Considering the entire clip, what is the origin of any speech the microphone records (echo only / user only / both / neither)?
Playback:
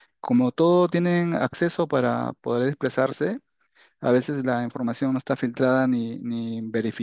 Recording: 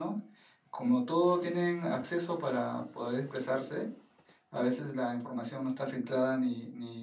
echo only